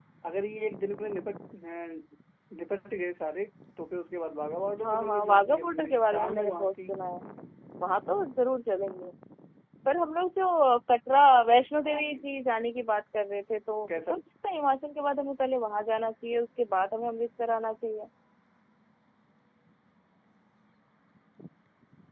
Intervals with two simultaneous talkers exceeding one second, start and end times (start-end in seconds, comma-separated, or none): 4.8-6.9